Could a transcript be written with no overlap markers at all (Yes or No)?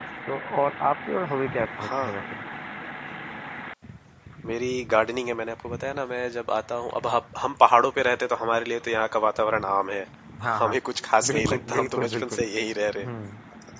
No